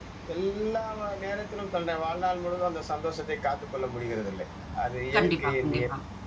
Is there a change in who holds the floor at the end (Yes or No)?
No